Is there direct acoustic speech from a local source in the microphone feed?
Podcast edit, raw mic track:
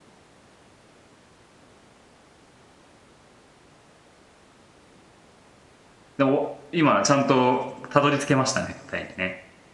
Yes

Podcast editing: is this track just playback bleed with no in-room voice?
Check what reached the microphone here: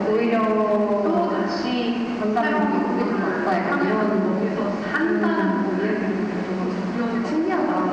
Yes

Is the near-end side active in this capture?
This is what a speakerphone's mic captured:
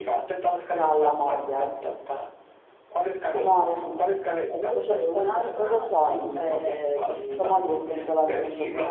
Yes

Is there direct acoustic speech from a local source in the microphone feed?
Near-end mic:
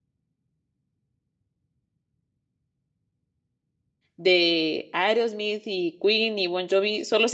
Yes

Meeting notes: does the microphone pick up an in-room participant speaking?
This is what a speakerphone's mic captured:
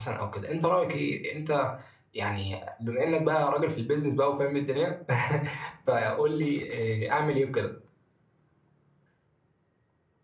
Yes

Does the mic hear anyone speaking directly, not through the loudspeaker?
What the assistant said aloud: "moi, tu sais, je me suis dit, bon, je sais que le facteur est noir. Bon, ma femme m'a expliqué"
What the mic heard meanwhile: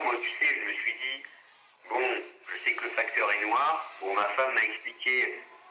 No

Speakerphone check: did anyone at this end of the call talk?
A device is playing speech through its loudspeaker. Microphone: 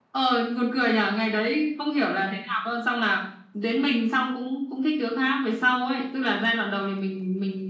No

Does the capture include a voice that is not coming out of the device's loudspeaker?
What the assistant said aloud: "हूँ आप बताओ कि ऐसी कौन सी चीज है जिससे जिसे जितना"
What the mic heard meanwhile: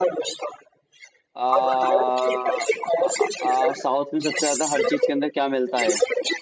Yes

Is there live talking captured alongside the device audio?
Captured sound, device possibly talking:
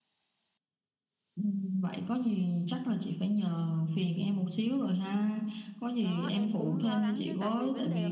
Yes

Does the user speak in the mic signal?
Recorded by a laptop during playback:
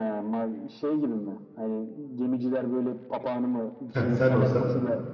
Yes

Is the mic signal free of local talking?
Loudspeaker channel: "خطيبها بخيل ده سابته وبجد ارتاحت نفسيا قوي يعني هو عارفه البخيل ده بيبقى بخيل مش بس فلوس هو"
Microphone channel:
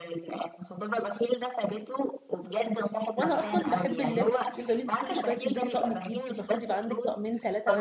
No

